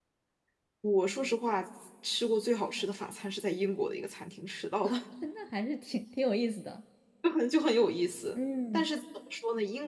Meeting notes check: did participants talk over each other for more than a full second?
No

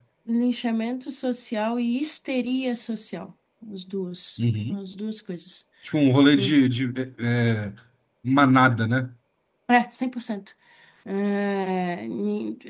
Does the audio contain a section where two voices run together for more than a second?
No

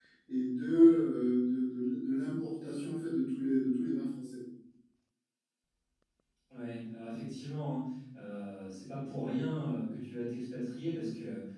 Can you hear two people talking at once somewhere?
No

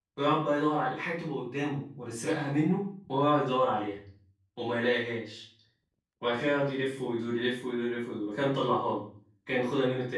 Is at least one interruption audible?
No

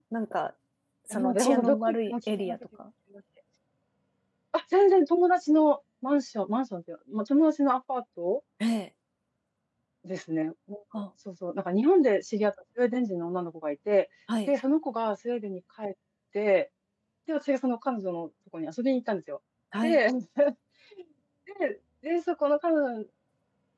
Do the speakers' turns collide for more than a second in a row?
Yes, from 1.1 s

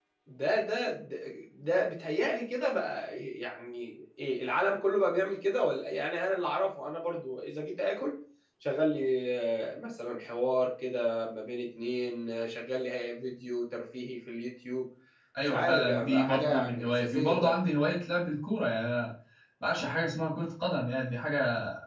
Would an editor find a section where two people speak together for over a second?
Yes, from 15.4 s

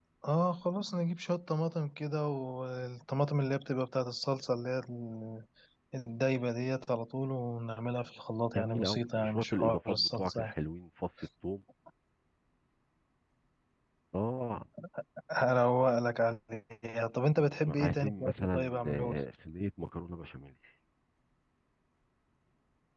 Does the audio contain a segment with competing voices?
Yes, from 8.5 s

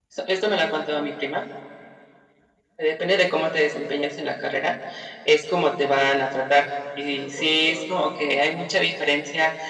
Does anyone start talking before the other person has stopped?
No

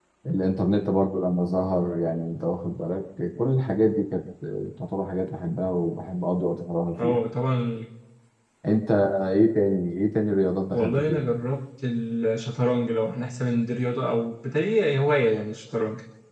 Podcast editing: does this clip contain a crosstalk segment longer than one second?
No

